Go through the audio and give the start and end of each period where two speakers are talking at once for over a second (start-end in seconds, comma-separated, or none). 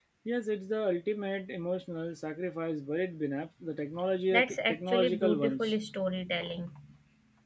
4.3-5.7